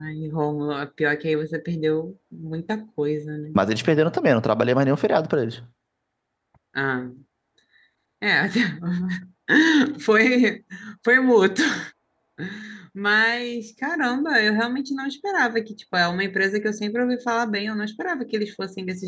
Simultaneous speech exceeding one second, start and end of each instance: none

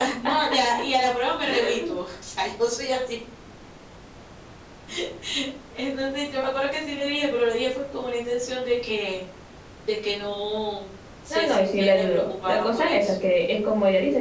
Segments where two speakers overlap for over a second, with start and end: 11.3-13.1

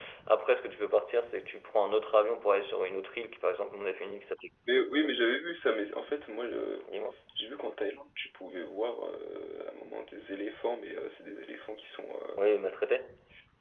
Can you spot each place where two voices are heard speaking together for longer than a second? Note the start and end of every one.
none

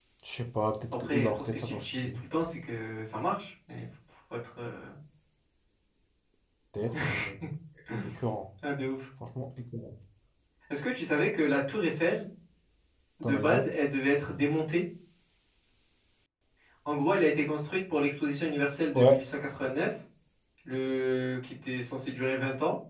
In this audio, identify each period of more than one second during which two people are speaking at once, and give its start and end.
0.9-2.2

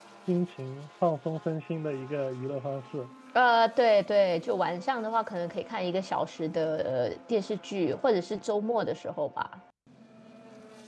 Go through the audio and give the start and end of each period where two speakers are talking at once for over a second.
none

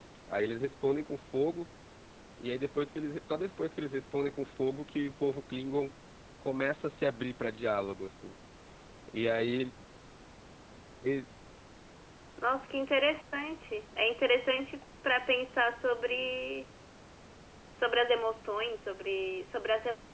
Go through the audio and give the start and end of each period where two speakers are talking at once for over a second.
none

